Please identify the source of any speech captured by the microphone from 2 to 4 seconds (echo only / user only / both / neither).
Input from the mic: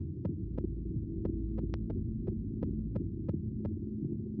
neither